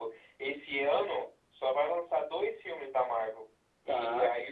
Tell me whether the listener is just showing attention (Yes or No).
Yes